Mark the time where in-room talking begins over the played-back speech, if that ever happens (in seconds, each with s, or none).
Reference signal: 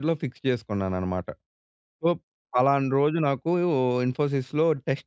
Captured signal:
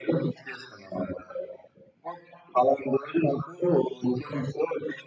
none